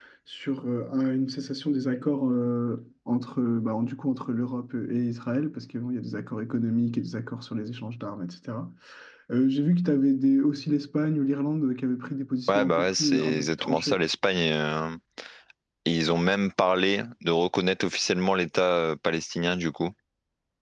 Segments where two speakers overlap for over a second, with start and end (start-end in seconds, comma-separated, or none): 12.5-14.0